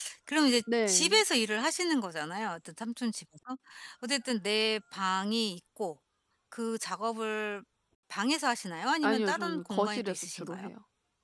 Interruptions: present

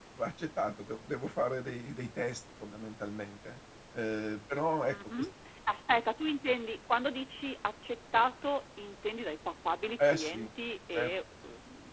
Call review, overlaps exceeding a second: none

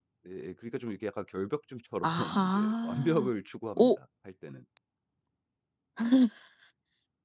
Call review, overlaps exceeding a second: present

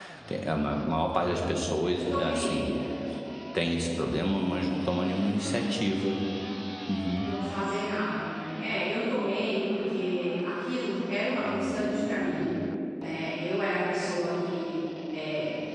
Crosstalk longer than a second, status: none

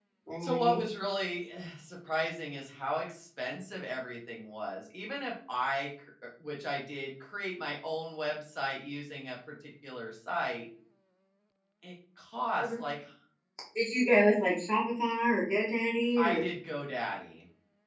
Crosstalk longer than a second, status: none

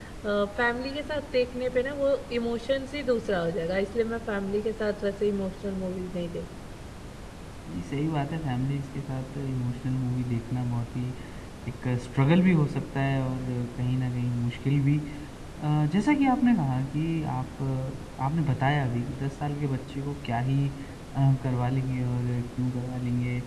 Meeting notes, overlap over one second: none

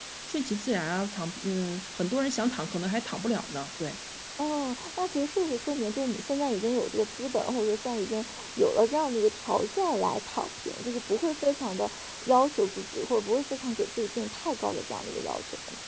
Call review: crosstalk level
none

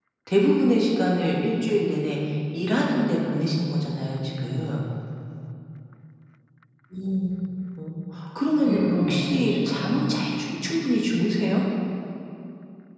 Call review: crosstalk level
present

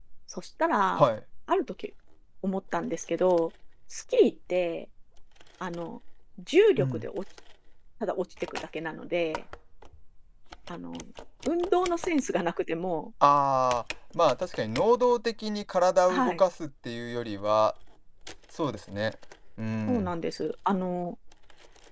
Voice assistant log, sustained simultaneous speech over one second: none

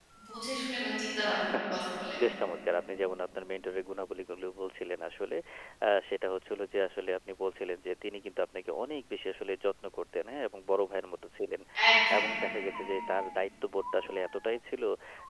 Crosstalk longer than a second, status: none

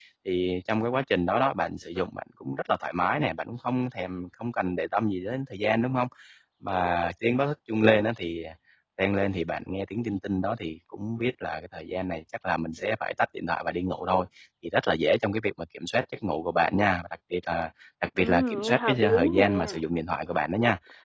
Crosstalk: present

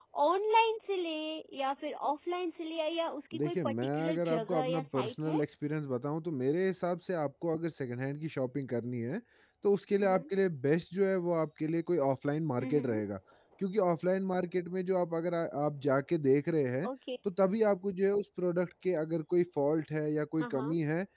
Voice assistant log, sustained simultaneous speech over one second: present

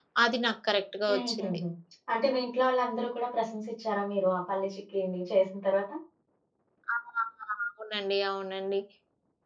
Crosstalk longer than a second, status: none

